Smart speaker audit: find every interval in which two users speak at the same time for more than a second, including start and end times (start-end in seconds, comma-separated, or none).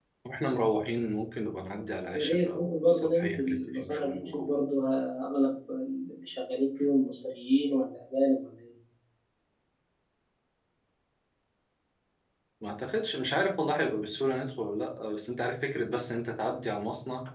2.1-4.5